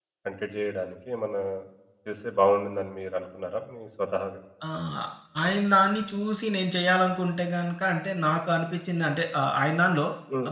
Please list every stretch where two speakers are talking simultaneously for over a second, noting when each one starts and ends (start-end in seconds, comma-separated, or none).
none